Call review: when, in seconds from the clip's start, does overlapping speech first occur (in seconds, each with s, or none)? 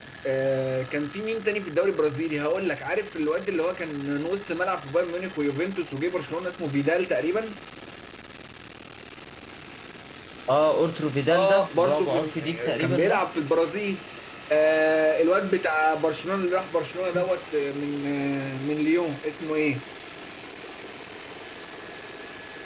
11.3 s